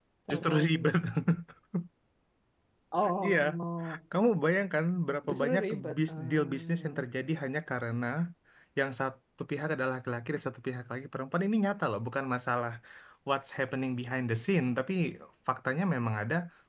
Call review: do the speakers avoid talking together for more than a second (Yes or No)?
No